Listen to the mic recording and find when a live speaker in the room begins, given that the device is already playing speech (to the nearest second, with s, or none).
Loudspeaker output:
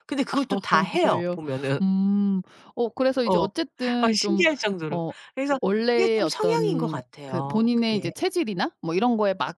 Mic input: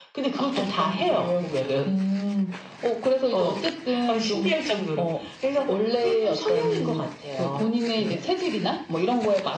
none